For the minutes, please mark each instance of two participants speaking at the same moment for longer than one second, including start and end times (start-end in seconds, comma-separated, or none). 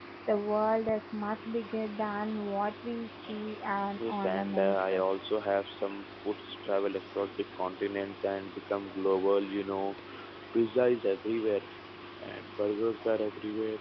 4.0-5.2